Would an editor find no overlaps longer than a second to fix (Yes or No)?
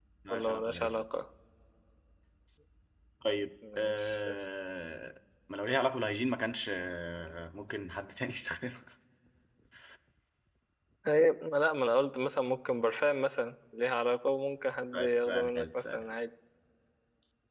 No